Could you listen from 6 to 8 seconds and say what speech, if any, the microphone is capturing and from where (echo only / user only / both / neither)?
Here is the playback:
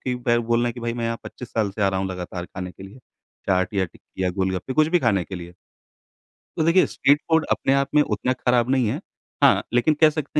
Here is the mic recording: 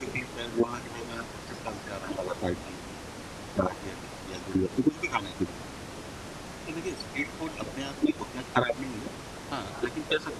echo only